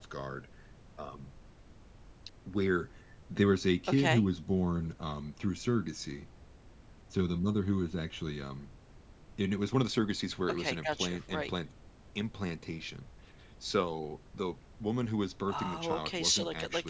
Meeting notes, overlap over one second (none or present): present